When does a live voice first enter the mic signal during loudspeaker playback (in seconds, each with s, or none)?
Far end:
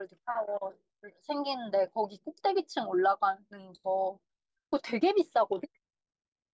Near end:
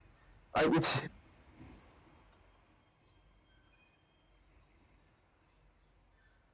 0.5 s